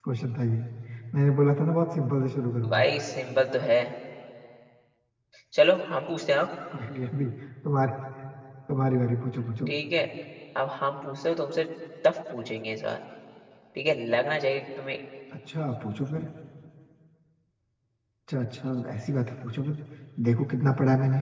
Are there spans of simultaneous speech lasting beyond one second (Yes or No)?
No